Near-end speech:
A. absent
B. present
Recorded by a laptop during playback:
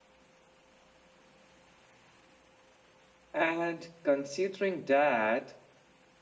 B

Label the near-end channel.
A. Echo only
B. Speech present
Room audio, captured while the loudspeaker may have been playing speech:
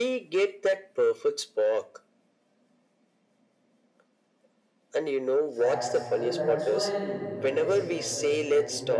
B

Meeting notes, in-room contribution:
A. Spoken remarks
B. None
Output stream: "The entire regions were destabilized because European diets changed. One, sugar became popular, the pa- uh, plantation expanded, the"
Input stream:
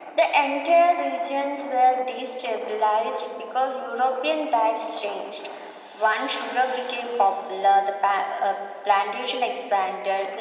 B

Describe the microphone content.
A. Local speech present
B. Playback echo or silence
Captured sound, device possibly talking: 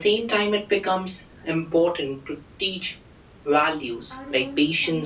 A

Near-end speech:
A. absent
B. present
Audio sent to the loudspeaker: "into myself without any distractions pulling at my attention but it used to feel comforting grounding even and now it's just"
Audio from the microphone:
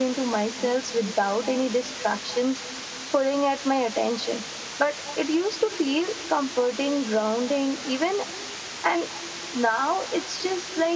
A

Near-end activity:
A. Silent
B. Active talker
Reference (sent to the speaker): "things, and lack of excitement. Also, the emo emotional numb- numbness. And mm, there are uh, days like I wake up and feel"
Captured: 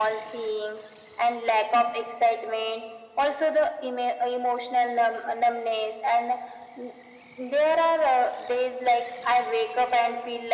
A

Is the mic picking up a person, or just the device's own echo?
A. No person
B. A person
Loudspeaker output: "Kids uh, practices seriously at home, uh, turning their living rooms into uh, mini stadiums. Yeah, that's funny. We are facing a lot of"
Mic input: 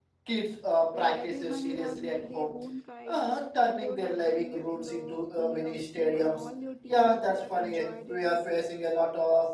B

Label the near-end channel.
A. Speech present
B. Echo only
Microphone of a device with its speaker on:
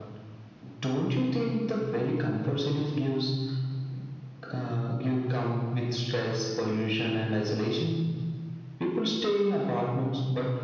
B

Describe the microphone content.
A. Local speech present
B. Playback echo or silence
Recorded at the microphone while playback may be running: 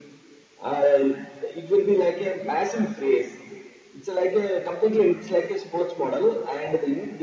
B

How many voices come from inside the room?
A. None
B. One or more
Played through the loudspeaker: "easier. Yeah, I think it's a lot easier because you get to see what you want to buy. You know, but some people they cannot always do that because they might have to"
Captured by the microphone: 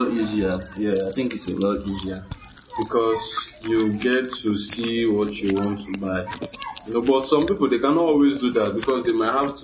A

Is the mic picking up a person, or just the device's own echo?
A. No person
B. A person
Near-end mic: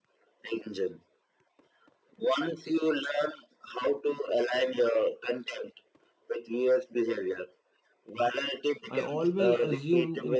B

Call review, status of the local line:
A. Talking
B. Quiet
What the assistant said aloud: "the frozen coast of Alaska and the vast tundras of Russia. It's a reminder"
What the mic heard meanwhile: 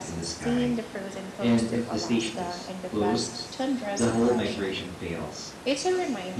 A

